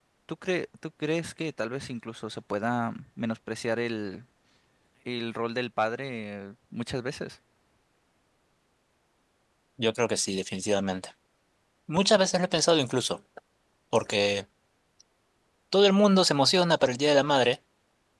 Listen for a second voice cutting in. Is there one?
No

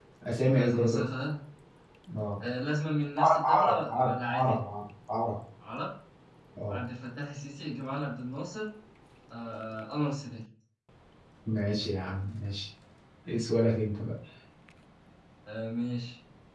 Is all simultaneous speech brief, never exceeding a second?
No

